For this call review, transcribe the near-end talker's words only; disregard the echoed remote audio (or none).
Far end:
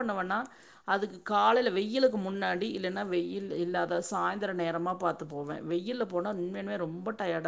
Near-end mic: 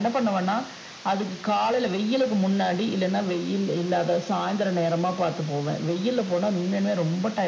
none